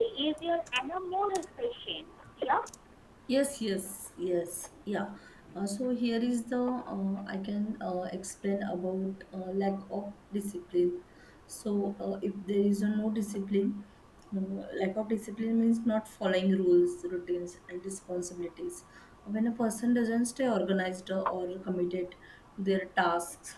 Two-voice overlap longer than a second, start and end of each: none

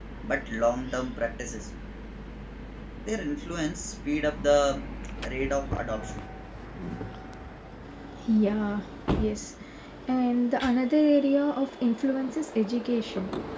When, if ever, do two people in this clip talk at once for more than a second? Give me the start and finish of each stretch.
none

